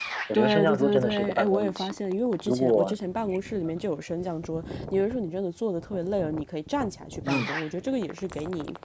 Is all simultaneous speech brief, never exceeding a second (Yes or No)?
No